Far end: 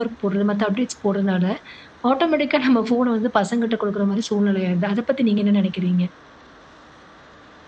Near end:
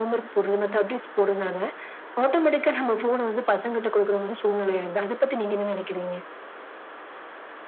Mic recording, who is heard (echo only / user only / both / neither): echo only